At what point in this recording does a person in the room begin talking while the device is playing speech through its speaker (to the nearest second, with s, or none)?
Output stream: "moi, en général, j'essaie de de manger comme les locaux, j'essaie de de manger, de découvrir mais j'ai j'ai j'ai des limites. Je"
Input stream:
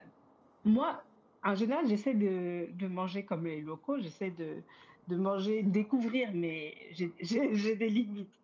none